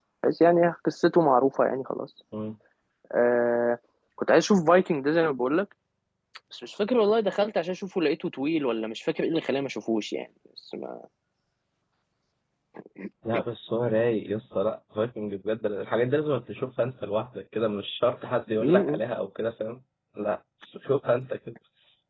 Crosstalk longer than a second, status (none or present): none